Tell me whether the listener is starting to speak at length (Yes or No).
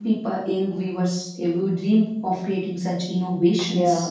Yes